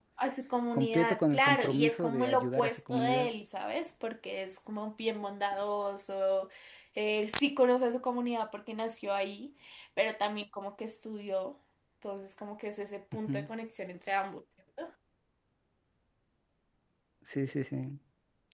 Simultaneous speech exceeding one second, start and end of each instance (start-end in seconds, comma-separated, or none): 0.7-3.3